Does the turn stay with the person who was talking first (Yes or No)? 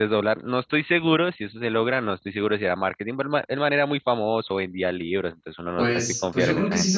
No